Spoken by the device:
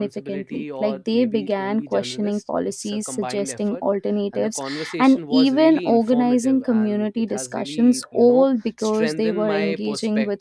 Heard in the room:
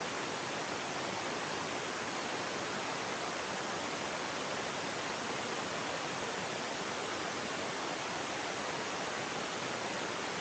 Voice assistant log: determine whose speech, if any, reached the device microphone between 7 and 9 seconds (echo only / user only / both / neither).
neither